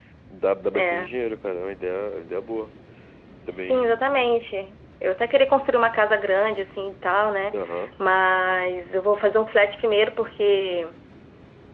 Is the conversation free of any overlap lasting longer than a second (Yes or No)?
Yes